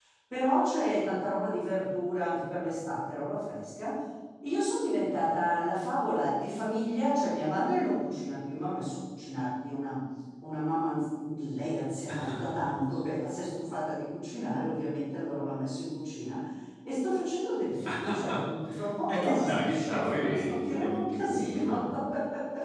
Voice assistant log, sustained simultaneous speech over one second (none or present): present